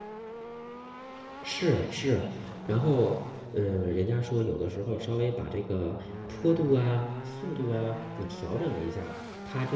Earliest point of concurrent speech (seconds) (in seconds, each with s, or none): none